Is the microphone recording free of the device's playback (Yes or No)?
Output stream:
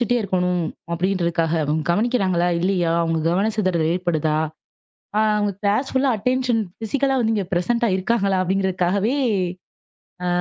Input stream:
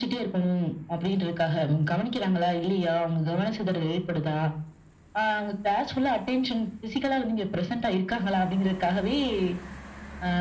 No